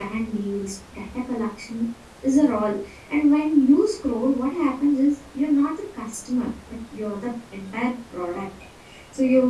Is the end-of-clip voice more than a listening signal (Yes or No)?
No